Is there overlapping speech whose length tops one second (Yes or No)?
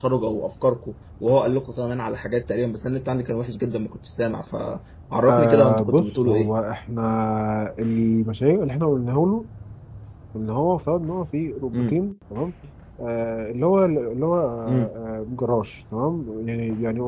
Yes